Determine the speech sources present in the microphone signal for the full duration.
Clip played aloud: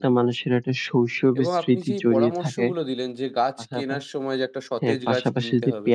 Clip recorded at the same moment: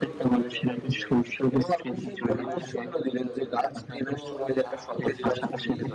both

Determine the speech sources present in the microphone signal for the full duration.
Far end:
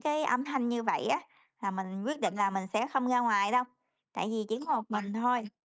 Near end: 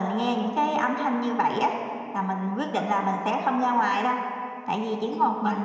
echo only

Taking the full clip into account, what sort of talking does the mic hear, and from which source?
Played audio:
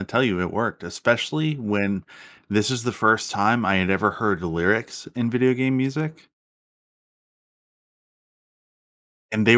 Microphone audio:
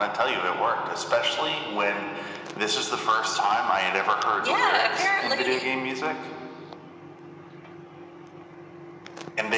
both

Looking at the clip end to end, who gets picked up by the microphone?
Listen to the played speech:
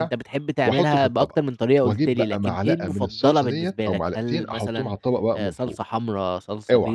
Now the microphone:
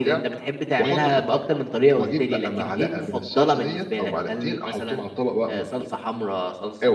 echo only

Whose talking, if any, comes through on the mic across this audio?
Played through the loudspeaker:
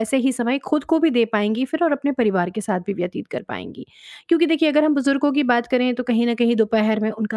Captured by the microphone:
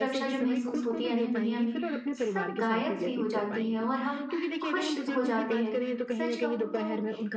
both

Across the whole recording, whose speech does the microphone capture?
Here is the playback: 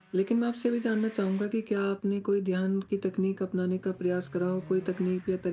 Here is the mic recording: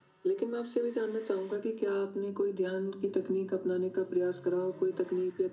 echo only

